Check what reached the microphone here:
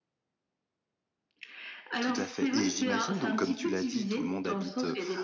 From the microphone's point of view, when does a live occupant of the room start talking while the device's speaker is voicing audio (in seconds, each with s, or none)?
2.0 s